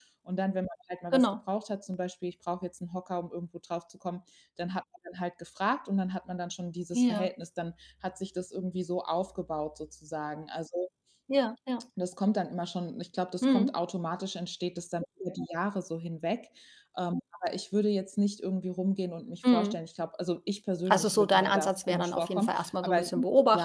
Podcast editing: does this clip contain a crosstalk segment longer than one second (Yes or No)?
Yes